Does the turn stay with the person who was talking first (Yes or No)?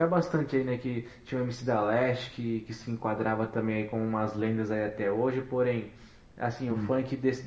Yes